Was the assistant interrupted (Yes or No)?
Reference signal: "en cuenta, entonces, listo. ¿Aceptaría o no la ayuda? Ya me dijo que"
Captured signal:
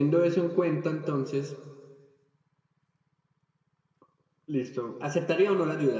No